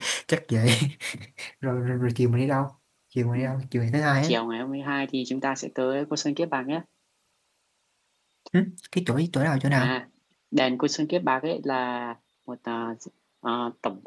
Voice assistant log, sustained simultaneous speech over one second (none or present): none